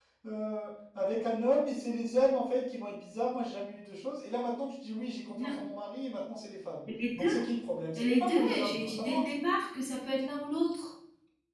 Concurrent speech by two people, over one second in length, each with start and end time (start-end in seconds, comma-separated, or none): 8.0-9.2